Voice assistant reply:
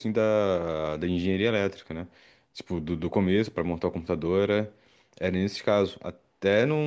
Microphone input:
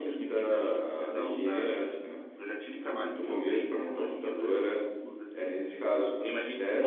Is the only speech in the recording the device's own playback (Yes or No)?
No